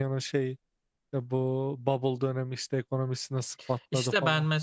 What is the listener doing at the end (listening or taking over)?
taking over